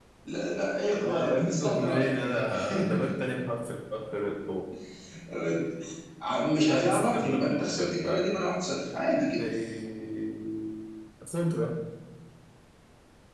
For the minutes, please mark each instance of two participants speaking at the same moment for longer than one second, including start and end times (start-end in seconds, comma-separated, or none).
1.0-2.2, 6.7-8.2